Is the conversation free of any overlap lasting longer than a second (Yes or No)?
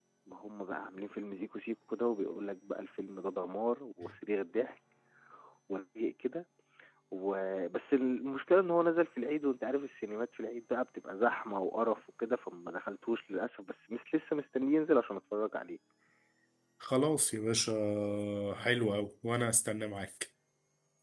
Yes